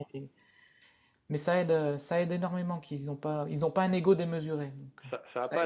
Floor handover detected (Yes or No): Yes